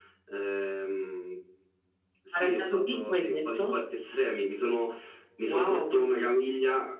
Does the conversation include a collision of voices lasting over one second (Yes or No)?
Yes